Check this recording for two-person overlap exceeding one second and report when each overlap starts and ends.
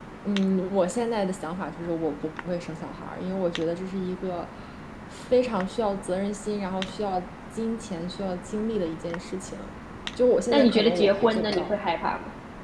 10.5-11.7

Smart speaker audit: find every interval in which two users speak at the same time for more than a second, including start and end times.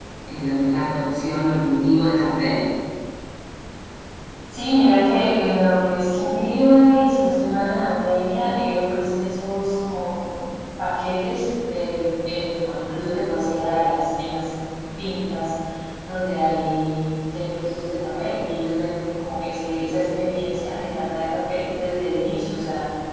none

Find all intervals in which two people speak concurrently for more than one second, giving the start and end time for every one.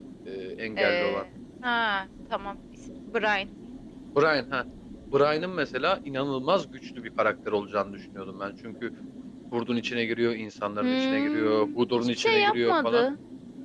10.8-13.0

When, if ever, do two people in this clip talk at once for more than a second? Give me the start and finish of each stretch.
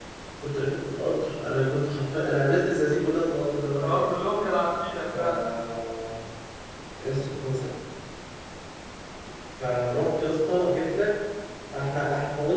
none

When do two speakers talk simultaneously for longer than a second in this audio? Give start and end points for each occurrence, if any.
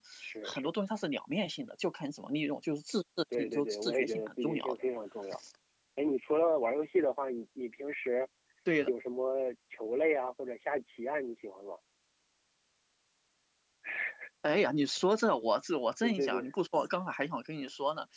3.3-4.8

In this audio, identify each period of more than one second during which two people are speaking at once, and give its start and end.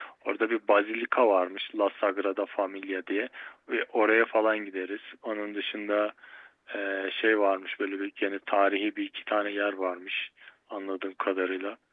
none

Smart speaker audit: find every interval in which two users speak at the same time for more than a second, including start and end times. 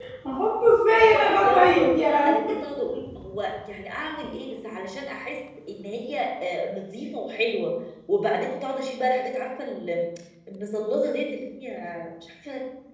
1.1-2.4

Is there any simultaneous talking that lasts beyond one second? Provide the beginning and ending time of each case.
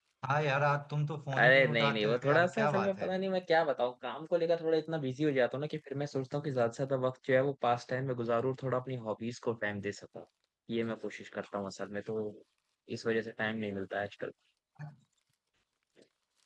1.4-3.1

